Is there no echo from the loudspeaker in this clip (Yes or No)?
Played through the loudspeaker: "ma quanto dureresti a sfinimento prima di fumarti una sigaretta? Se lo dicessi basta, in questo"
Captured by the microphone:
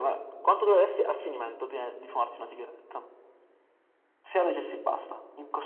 No